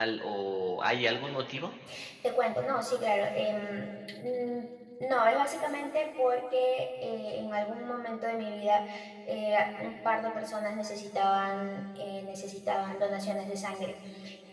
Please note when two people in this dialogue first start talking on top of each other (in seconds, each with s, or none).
none